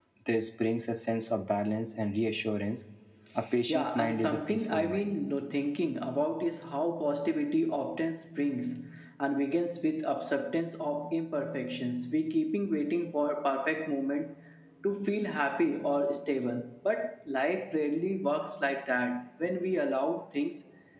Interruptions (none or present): present